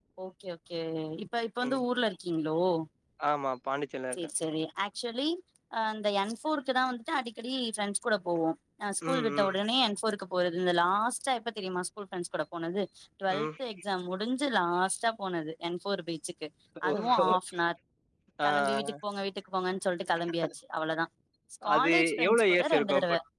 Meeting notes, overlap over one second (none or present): present